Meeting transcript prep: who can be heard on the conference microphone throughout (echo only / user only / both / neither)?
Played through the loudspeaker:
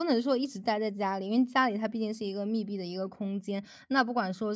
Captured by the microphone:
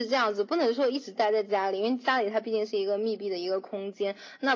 echo only